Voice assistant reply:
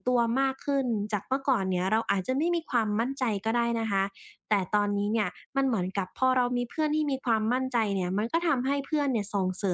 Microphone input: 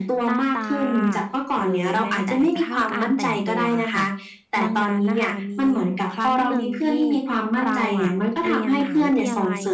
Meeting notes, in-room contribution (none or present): present